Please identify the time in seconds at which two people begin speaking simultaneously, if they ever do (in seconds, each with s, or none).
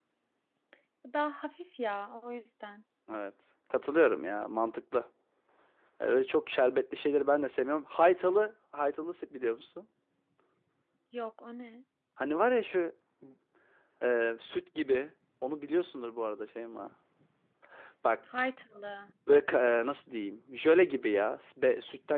none